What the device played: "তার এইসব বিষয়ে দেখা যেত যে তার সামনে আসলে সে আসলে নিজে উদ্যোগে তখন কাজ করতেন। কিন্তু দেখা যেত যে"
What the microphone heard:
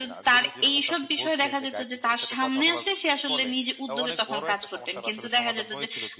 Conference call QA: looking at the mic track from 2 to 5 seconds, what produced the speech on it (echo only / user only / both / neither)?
both